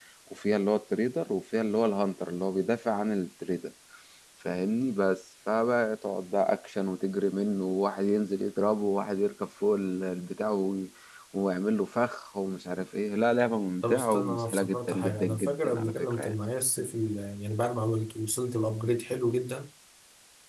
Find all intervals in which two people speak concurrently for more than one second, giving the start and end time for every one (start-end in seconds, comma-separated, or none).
13.9-16.3